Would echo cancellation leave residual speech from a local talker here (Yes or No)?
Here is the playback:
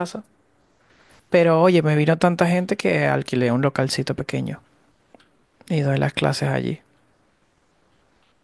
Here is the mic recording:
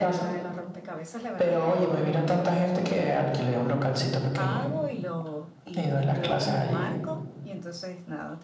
Yes